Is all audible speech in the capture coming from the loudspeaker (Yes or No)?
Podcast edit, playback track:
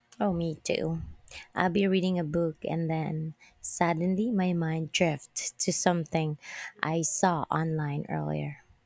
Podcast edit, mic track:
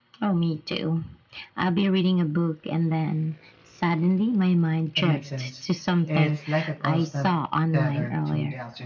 No